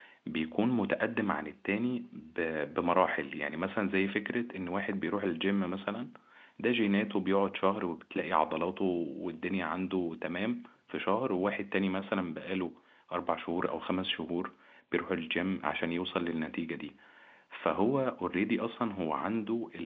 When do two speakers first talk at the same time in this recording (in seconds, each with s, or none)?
none